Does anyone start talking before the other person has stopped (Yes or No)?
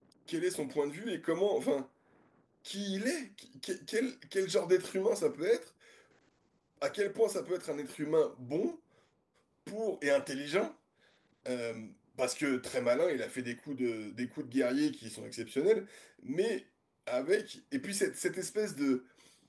No